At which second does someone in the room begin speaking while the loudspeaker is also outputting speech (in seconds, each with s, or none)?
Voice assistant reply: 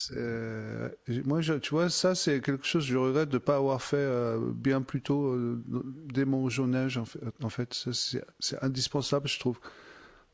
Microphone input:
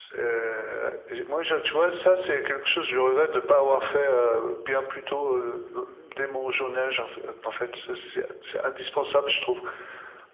none